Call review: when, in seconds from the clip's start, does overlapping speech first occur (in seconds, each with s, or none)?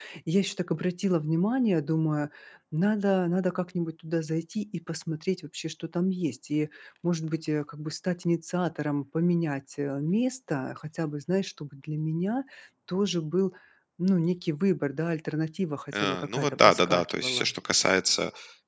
15.9 s